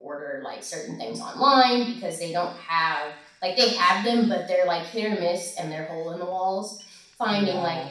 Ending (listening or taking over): listening